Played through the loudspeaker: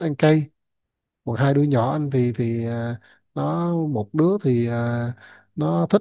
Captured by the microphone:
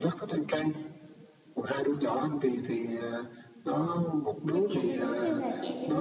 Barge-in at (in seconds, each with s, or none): 4.5 s